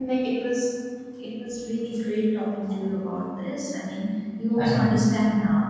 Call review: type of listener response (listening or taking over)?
listening